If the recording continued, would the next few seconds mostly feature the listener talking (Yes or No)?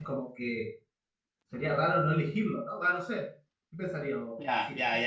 Yes